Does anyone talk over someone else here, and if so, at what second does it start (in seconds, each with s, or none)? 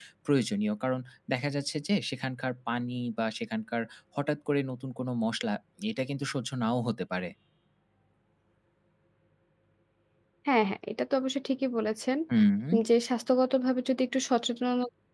none